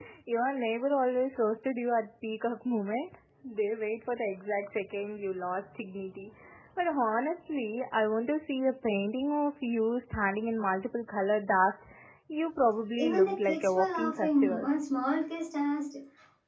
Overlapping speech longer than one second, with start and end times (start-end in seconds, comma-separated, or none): 13.0-14.7